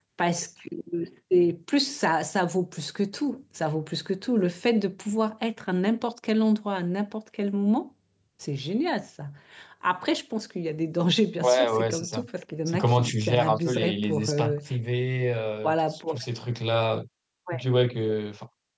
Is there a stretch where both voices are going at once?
Yes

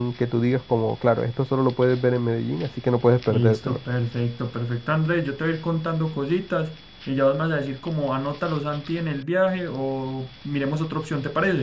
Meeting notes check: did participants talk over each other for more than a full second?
No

